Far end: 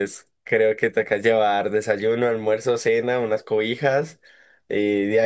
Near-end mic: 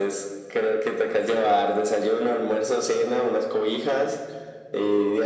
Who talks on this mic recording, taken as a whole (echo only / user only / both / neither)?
echo only